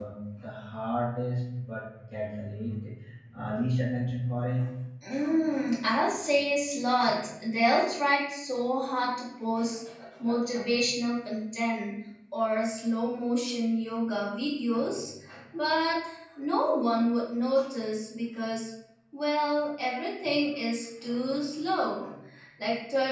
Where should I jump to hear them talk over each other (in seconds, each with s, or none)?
none